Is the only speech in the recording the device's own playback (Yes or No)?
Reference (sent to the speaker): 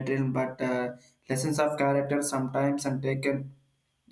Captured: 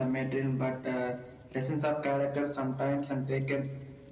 Yes